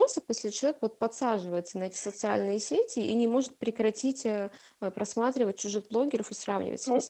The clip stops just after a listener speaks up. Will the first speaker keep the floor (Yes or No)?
No